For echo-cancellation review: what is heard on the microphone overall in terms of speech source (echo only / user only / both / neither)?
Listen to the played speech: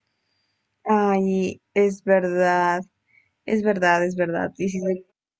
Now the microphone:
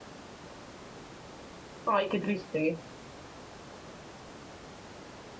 user only